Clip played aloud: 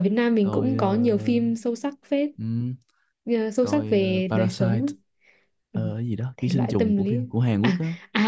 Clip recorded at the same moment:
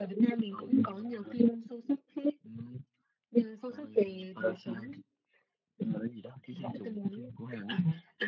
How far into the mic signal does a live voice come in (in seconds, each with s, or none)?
none